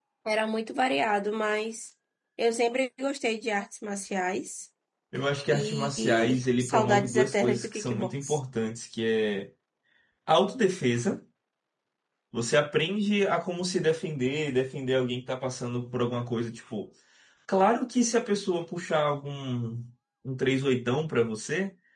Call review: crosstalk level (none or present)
present